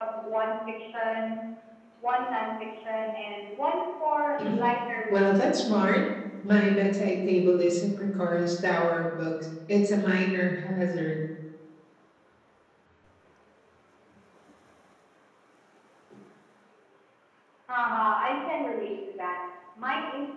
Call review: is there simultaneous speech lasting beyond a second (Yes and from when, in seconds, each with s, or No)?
No